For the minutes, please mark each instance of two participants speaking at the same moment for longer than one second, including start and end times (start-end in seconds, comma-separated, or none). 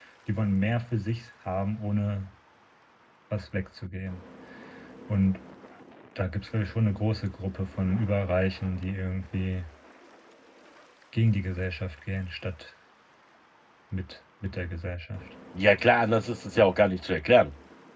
none